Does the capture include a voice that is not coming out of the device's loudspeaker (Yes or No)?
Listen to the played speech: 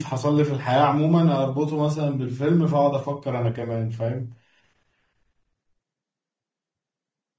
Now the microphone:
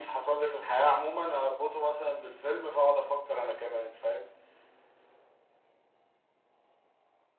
No